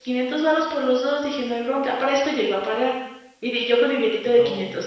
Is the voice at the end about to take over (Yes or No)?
No